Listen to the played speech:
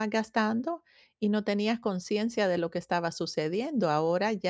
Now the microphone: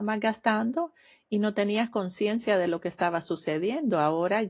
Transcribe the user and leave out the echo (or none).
none